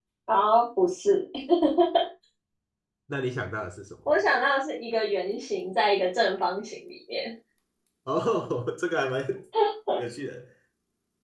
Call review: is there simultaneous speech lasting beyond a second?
No

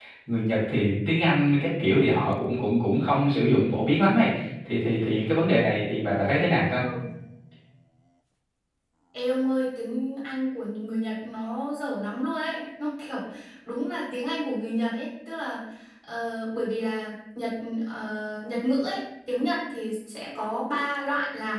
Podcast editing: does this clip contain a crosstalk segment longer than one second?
No

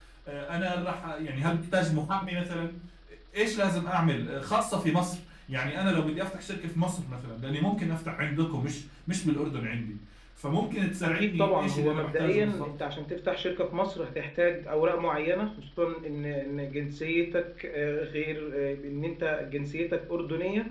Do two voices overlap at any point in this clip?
Yes, from 11.1 s

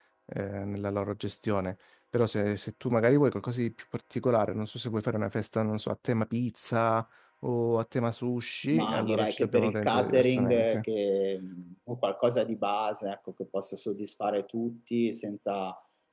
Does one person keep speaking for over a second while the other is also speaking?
Yes, from 8.7 s

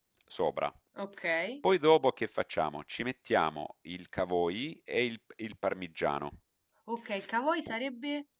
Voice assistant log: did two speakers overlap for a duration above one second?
No

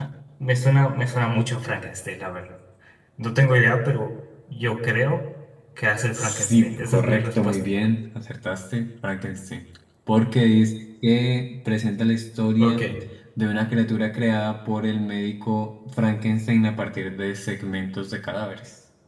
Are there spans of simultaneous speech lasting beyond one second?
Yes, from 6.1 s

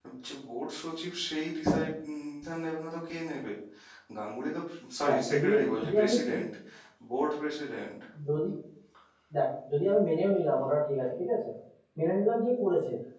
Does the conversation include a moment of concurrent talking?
Yes, from 5.0 s

